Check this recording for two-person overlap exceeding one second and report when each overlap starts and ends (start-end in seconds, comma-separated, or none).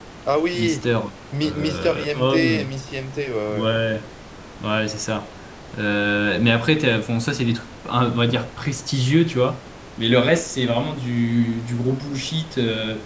1.4-2.7